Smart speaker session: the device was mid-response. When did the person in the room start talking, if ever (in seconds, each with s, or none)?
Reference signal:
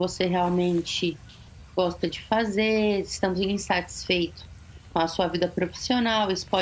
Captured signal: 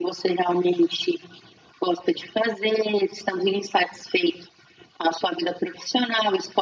none